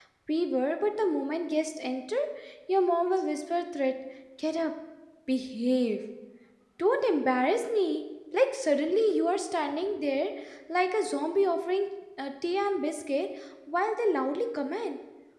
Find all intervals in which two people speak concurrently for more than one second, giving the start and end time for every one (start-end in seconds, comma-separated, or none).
none